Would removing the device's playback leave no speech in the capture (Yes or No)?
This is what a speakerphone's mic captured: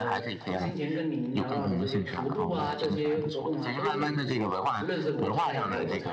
No